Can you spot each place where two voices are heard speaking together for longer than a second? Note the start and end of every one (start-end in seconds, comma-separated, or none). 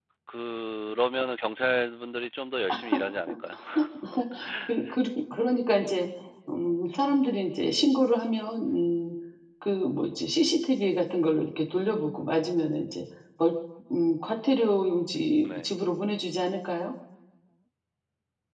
none